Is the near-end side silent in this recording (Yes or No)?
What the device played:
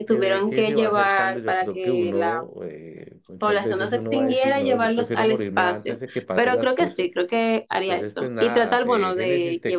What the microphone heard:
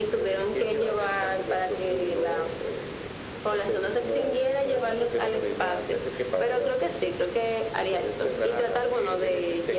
Yes